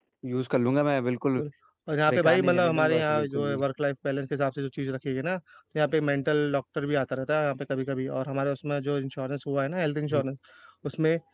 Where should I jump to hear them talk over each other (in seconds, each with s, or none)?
2.1 s